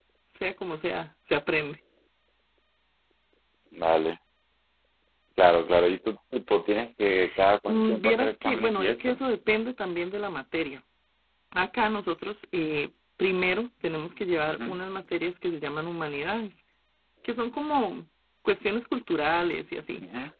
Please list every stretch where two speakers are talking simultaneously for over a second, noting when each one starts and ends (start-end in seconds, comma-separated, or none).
7.7-9.2